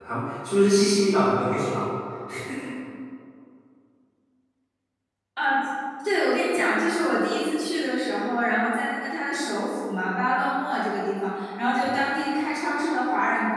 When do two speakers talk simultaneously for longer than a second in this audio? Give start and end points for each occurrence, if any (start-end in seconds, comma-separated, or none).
none